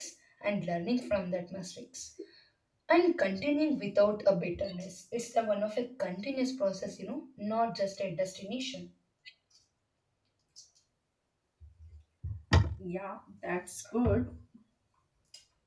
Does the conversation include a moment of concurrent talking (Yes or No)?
No